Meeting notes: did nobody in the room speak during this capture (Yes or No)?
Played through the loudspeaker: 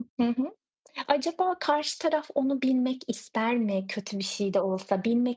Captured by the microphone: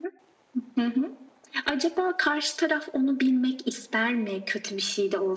Yes